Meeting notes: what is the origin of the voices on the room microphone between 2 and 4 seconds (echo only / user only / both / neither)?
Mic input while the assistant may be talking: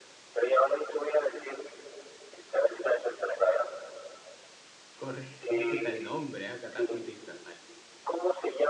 echo only